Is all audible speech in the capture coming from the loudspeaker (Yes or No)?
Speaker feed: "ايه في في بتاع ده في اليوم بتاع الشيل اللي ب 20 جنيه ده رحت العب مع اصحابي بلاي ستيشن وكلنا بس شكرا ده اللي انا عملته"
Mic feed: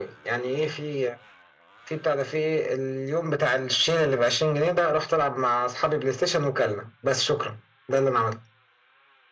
Yes